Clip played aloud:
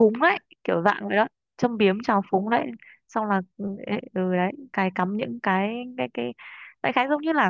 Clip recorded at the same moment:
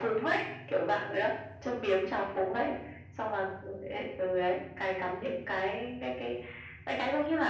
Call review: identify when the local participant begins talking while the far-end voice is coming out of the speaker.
none

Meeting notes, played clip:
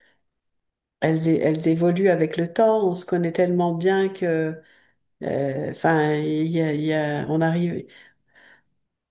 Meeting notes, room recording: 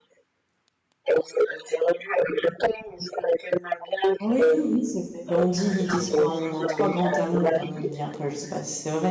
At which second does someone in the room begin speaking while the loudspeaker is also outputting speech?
4.2 s

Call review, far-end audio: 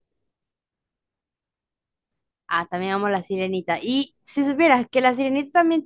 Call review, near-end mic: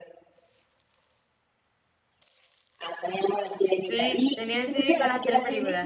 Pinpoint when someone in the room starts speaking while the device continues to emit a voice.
3.8 s

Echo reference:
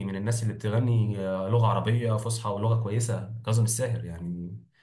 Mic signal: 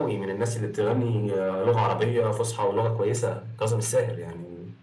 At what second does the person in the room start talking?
none

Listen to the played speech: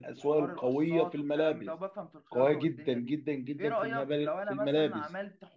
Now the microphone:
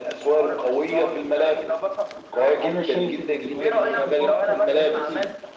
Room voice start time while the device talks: 2.6 s

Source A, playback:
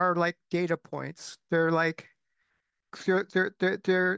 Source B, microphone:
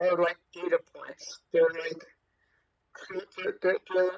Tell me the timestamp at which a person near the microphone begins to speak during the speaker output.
none

